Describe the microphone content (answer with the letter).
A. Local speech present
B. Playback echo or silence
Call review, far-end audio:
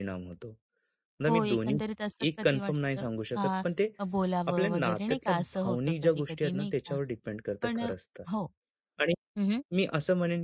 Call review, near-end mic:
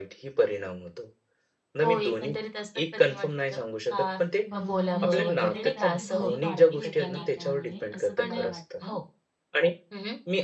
A